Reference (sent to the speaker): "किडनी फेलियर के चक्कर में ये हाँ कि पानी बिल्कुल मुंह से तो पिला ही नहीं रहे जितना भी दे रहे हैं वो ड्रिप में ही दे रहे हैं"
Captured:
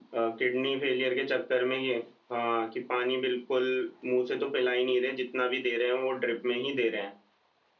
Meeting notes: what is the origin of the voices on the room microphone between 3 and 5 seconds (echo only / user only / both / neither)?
echo only